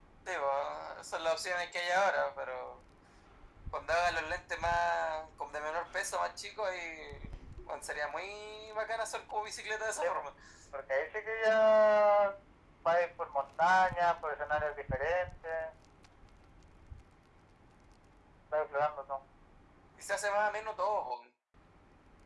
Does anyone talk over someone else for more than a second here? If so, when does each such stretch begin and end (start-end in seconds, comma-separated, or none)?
none